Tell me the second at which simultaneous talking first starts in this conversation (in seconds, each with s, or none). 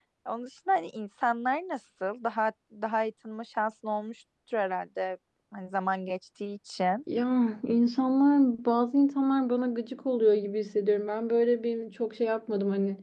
none